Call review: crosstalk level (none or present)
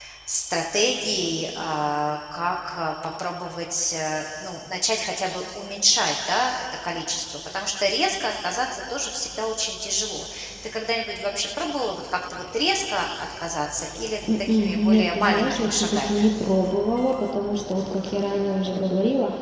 present